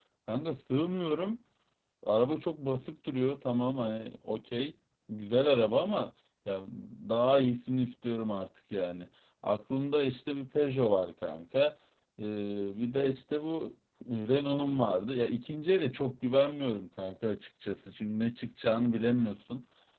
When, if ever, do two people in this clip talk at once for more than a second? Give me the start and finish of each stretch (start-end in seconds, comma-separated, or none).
none